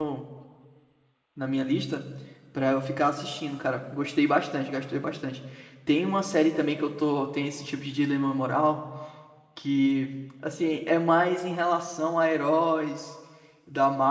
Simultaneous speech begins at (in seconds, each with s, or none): none